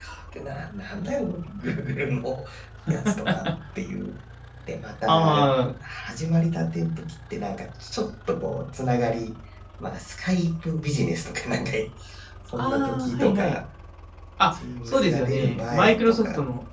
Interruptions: present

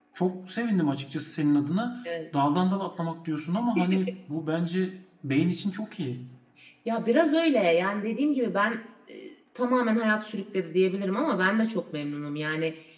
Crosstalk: none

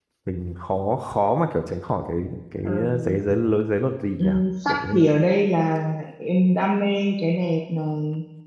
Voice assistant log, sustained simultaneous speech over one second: none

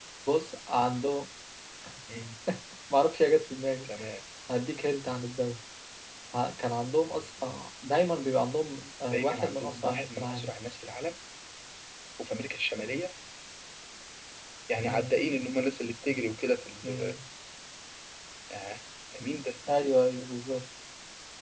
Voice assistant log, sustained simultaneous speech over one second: present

